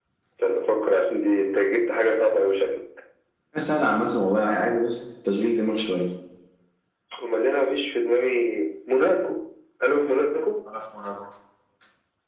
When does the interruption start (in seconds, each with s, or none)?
none